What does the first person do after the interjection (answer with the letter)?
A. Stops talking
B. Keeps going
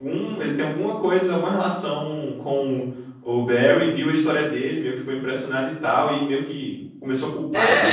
A